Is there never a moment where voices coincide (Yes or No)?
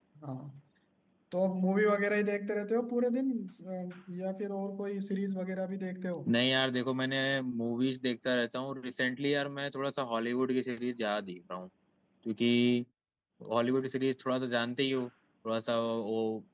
Yes